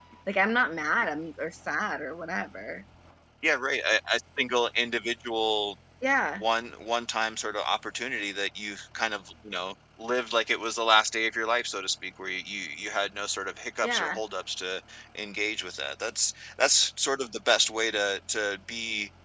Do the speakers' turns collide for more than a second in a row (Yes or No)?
No